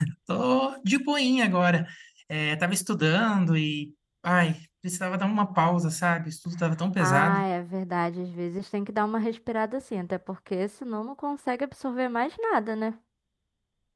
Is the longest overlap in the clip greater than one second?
No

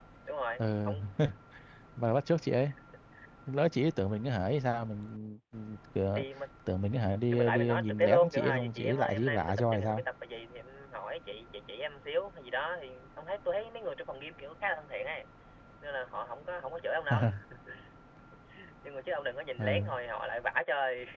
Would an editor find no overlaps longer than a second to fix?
No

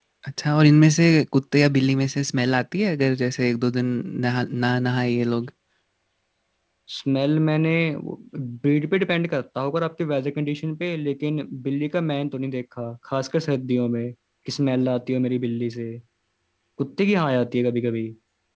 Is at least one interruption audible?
No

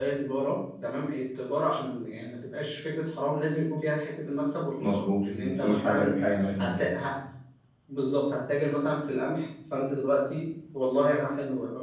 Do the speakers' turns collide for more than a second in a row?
Yes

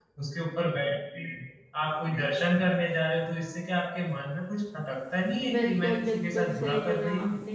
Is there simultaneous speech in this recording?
Yes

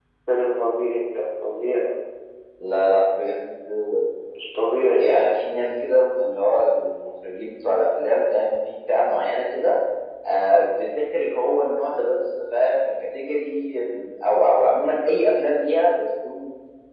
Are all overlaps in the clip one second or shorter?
Yes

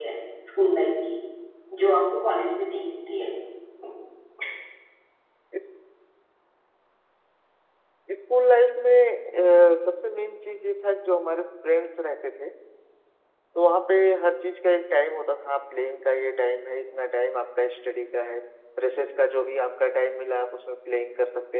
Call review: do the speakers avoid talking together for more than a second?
Yes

